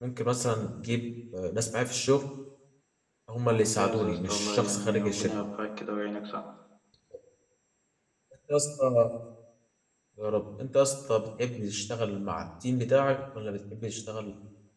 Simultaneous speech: Yes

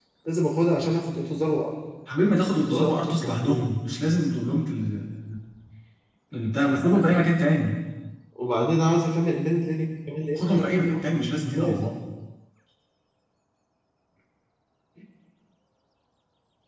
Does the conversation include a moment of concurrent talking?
Yes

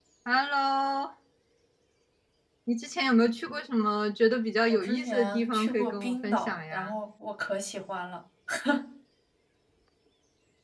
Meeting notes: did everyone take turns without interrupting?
No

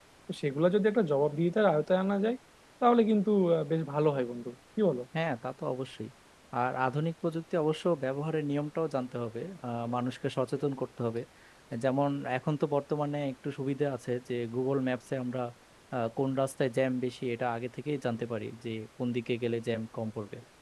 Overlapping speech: No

